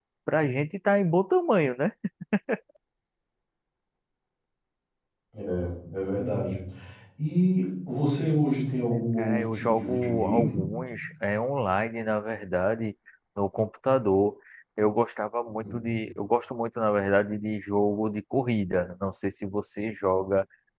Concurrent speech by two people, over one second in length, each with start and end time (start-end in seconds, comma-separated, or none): 9.2-10.6